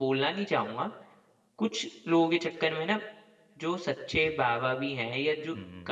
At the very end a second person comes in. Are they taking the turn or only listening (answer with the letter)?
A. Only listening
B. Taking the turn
A